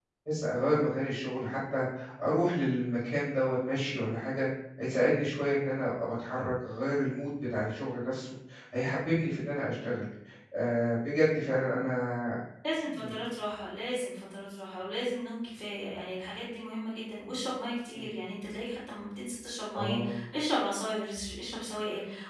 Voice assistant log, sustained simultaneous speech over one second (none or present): none